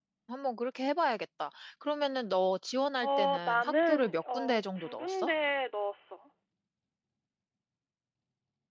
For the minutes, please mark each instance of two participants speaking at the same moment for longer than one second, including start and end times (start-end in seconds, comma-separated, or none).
3.0-5.3